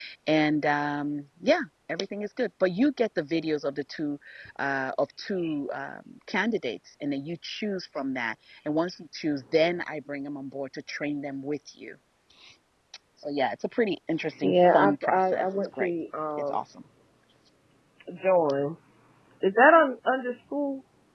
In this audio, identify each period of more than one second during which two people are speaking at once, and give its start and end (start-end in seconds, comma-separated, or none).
14.4-15.9